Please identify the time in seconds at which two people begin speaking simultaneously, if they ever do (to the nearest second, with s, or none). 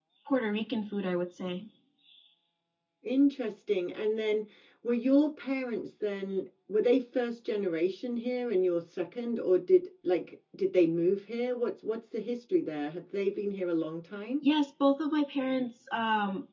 none